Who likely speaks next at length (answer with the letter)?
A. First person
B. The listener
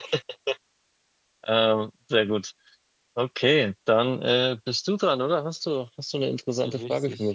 B